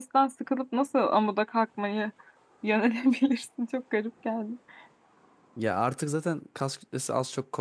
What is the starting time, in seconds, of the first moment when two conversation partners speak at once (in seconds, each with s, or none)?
none